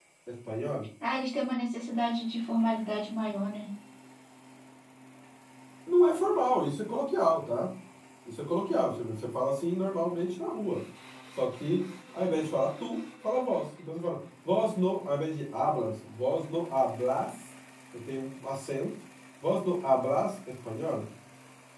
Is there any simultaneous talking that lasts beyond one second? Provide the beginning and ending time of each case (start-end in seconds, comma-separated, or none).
none